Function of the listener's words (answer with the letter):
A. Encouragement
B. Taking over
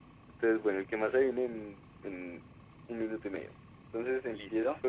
A